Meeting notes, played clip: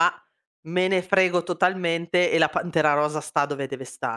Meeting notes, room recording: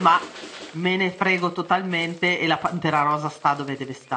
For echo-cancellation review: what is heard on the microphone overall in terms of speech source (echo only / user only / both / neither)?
echo only